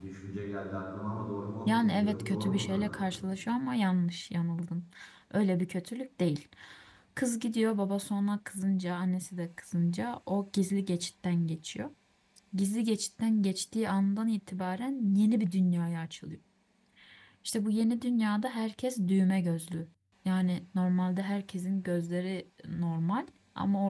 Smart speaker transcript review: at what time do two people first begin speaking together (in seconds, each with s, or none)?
1.7 s